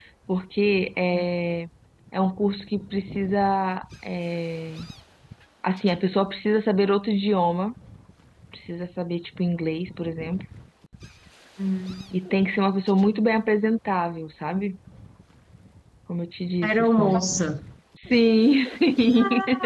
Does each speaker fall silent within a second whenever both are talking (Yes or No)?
Yes